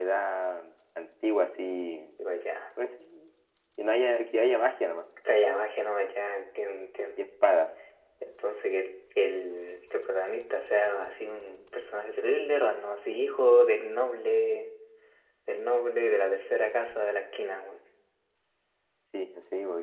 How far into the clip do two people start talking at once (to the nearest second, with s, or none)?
none